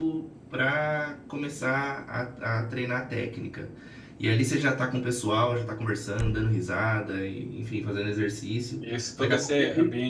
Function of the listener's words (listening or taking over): taking over